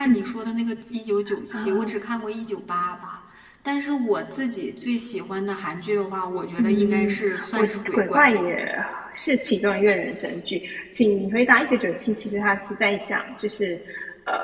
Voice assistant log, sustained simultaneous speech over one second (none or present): present